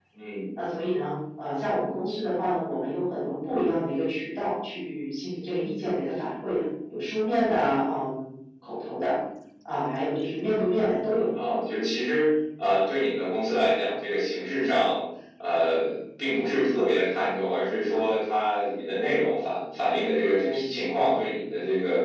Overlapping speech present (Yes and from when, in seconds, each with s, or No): No